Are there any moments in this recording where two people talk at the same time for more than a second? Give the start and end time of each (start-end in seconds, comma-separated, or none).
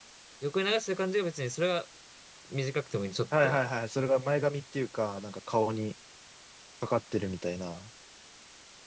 none